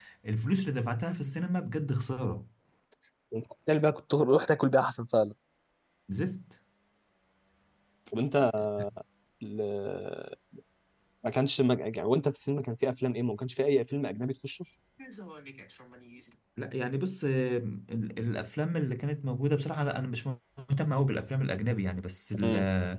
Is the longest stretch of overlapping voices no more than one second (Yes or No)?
Yes